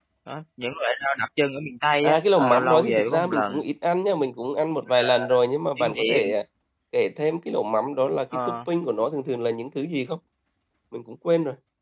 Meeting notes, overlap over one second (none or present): present